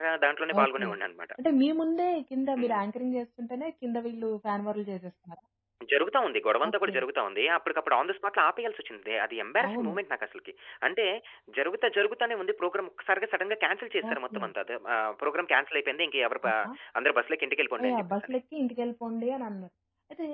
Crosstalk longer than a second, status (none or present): none